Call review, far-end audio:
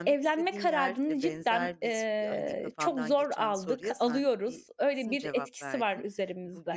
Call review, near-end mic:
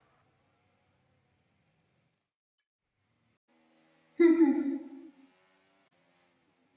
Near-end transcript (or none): Hı hı.